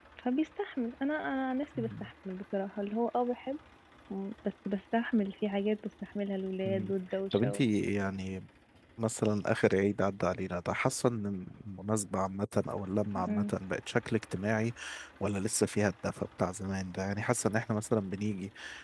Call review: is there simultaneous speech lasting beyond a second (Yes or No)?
No